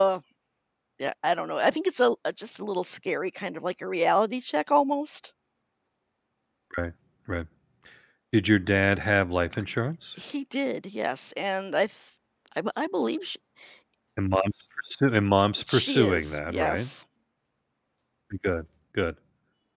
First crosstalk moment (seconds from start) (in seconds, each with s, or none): 15.7 s